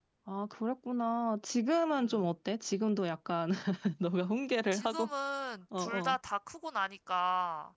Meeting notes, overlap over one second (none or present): none